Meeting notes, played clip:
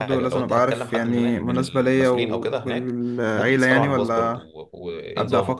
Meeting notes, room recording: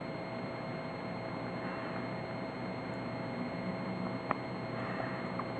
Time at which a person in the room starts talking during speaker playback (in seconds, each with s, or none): none